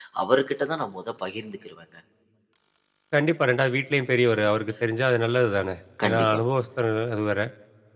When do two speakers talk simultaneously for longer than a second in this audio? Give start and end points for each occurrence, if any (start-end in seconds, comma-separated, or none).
none